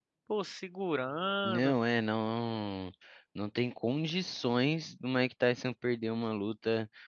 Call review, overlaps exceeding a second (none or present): none